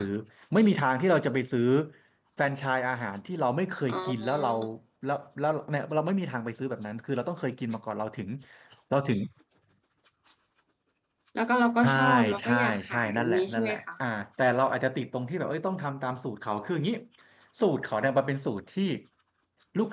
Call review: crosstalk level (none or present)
present